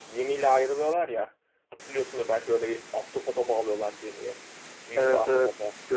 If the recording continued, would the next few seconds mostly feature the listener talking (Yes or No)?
Yes